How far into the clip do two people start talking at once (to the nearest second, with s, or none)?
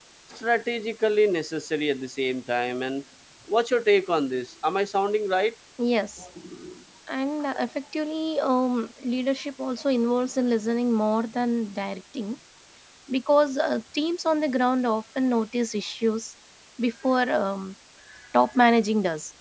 none